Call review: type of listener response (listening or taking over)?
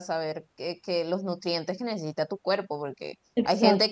listening